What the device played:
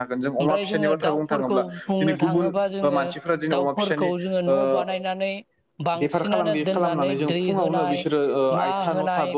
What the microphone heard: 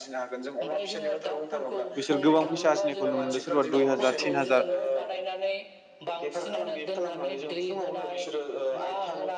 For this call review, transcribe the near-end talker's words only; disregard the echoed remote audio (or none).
बिसोर गोबां फैसा आरजिनायखौ नु मोनदों सोरबा दुइ हाजार तिन हाजार